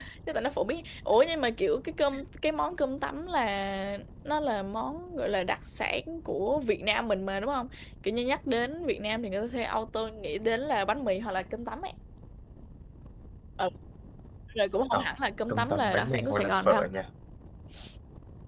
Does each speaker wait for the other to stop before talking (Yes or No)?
No